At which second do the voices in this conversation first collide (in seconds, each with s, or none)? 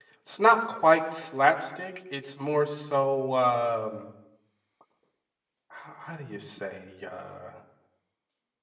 none